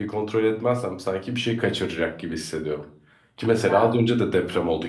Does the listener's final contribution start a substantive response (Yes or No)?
No